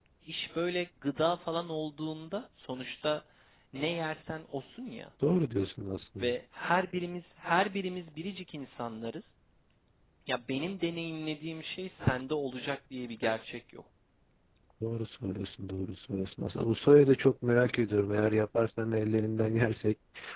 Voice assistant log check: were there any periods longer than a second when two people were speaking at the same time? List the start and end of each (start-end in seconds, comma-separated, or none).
none